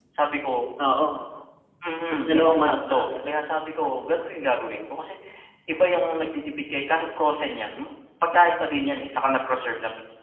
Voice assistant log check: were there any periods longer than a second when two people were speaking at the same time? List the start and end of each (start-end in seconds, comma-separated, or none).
2.3-4.3